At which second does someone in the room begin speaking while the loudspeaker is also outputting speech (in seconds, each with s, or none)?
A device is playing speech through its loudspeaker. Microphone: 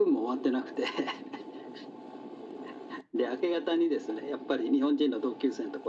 none